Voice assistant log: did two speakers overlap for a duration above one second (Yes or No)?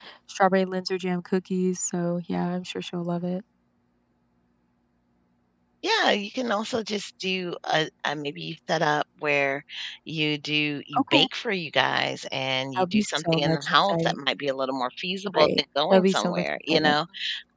Yes